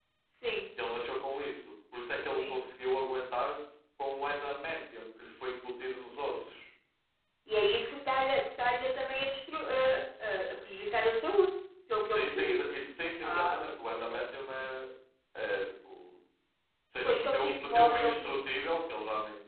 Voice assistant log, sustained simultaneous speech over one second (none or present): present